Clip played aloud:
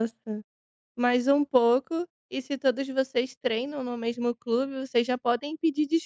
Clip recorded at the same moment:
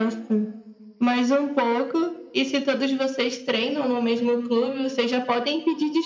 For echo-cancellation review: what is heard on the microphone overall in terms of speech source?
echo only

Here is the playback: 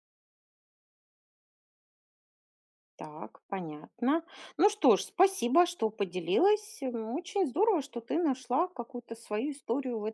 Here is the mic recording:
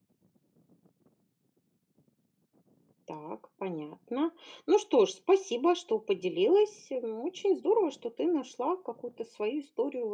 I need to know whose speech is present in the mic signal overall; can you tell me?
echo only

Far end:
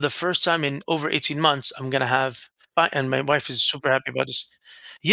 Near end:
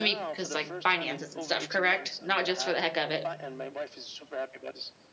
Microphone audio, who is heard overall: both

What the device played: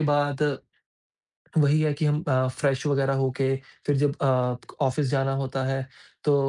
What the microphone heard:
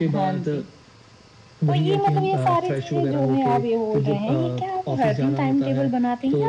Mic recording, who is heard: both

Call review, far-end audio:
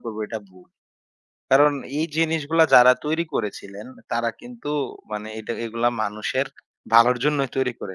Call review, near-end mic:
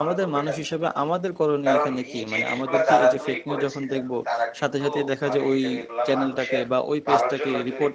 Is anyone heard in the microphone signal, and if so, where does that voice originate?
both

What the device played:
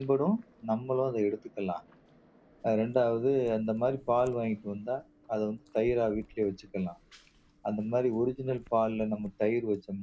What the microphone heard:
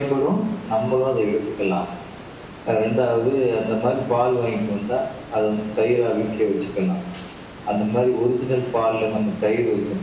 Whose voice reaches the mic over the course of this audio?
echo only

